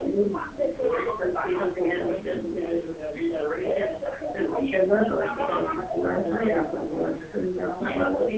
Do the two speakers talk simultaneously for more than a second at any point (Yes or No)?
Yes